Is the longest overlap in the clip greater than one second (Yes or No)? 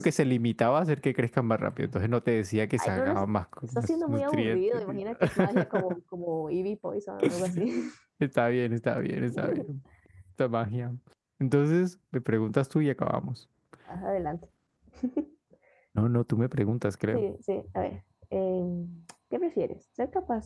Yes